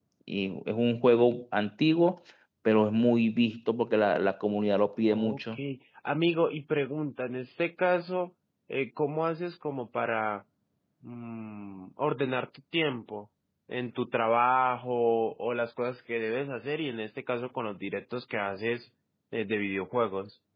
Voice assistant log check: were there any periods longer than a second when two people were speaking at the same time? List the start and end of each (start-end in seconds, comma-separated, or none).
none